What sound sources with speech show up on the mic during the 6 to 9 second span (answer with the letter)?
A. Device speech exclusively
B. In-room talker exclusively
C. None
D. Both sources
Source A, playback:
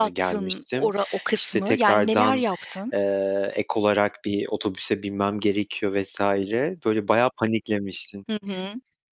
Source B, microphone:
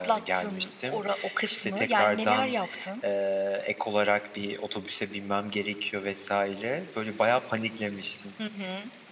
A